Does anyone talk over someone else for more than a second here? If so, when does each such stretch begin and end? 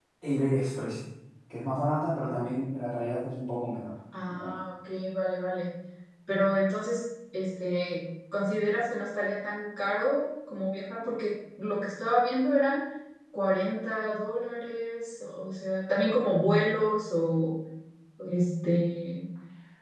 none

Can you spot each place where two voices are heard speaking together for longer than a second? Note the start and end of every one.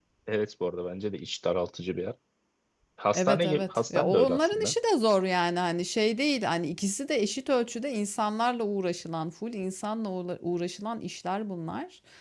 3.1-4.7

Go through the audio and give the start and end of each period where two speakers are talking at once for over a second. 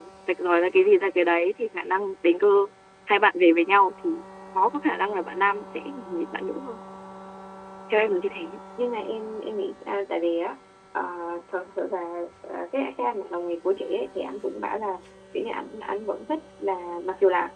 none

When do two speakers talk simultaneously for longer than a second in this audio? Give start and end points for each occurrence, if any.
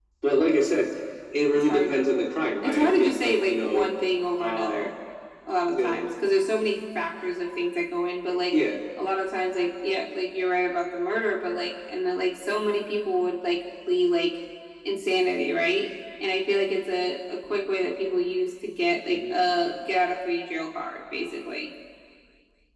2.6-3.9

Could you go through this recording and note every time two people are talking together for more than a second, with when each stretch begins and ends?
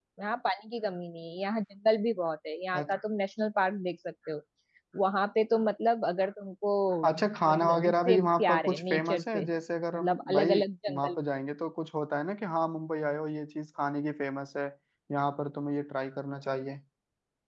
7.1-9.4, 9.9-11.2

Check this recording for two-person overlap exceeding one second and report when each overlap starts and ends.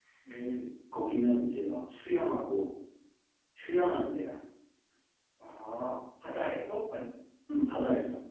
none

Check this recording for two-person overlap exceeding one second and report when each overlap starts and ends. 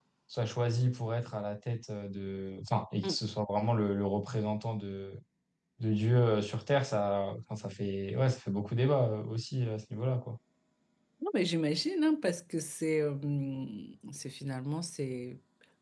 none

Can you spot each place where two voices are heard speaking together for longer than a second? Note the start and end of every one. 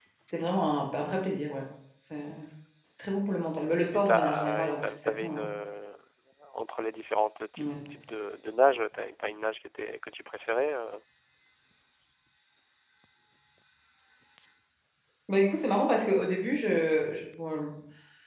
3.9-5.5

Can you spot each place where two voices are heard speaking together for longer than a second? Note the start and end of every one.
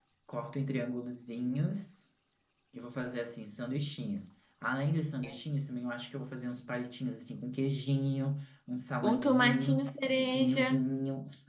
9.0-10.8

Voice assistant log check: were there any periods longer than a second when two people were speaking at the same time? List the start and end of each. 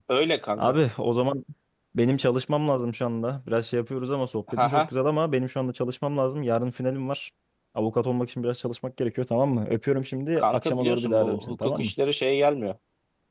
10.4-11.9

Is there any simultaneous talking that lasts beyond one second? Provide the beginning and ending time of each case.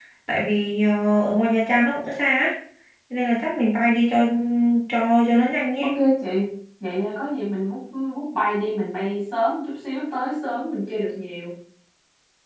none

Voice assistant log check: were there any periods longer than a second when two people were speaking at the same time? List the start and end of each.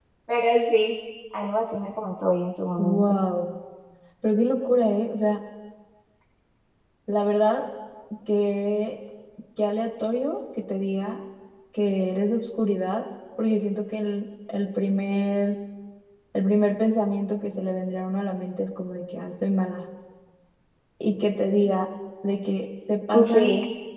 none

